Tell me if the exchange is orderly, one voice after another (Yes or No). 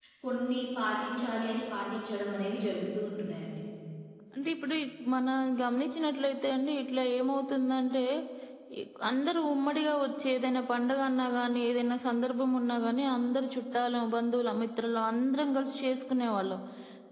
Yes